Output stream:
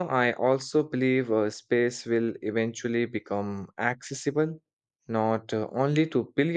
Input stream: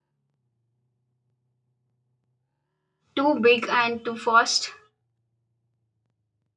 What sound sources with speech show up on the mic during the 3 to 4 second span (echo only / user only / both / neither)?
user only